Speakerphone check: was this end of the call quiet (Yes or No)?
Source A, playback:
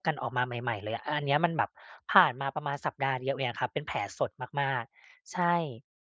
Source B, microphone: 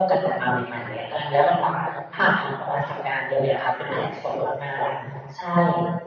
Yes